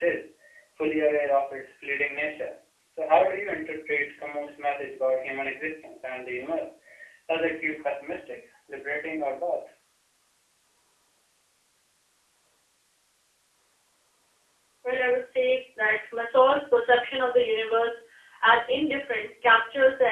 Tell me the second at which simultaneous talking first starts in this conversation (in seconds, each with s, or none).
none